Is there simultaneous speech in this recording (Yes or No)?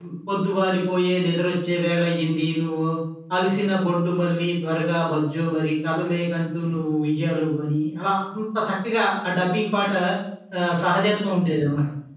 No